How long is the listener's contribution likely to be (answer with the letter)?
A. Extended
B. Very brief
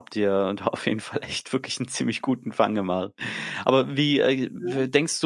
B